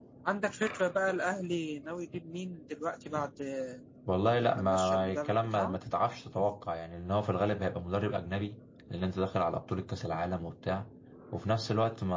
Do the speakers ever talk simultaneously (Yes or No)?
Yes